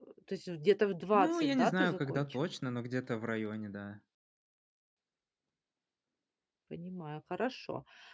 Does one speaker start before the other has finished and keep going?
Yes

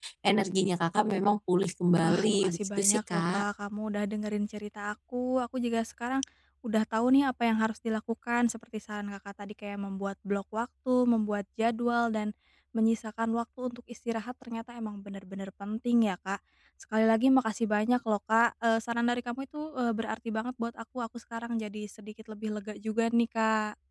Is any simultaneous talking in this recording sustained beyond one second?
Yes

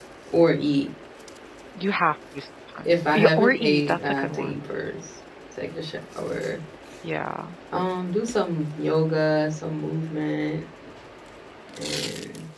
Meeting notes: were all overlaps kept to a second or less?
No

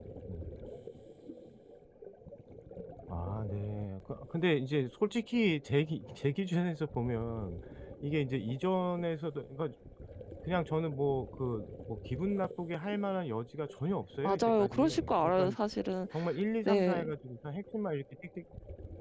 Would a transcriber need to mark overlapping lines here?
Yes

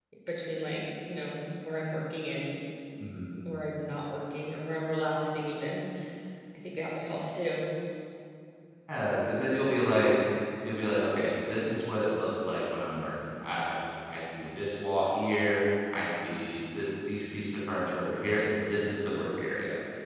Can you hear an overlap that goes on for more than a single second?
No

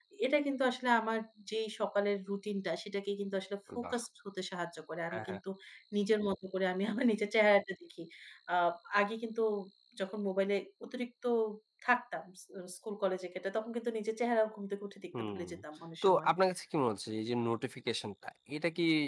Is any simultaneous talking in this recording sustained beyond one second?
No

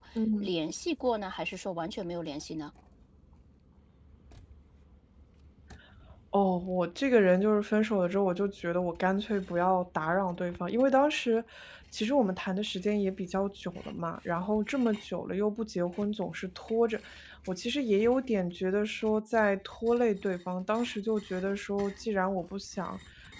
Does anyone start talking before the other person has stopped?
No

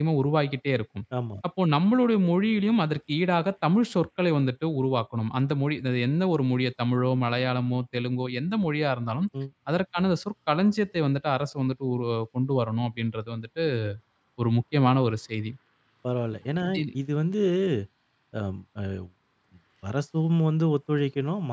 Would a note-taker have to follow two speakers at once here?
No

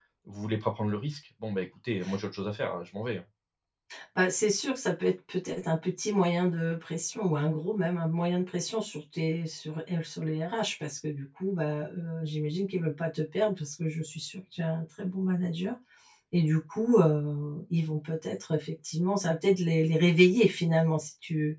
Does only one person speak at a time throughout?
Yes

